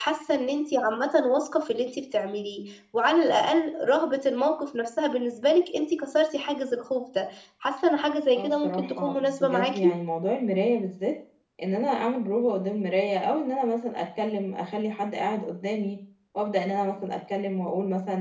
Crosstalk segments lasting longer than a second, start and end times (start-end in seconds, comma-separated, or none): 8.4-9.8